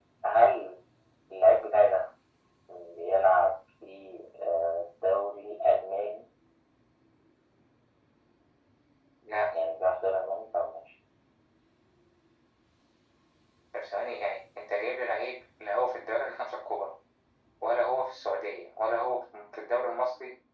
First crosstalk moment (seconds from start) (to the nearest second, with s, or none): none